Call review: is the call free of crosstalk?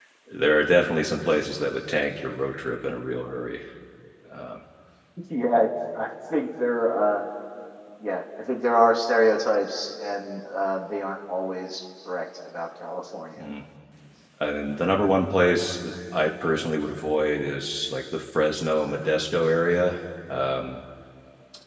Yes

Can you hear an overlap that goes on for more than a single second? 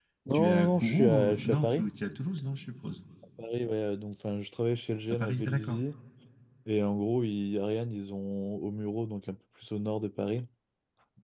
Yes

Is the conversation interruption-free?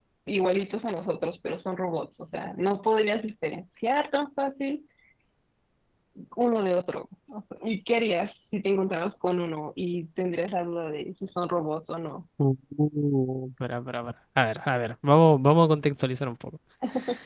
Yes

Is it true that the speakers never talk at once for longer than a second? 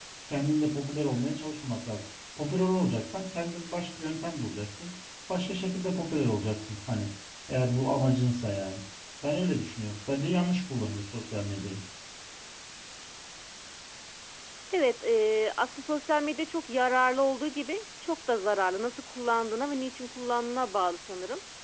Yes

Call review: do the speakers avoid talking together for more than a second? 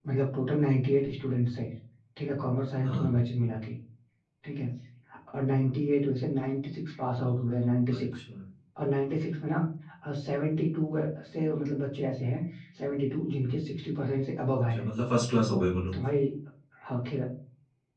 Yes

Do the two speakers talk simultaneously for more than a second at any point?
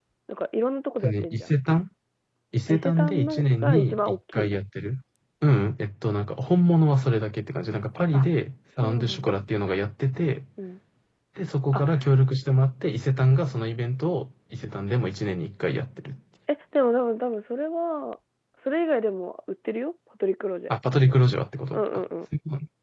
Yes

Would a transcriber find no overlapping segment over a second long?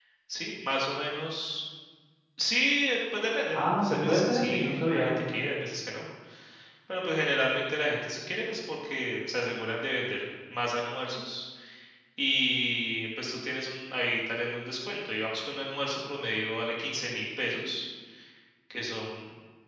No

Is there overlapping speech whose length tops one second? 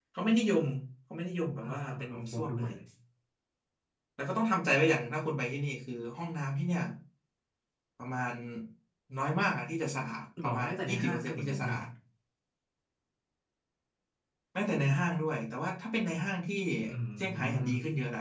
Yes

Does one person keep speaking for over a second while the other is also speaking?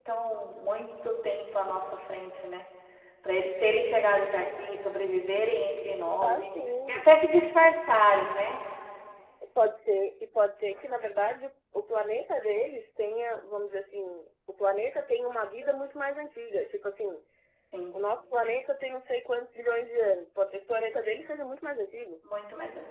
No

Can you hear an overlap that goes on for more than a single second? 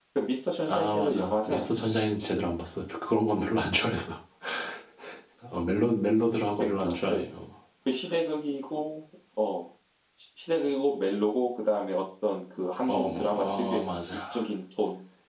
Yes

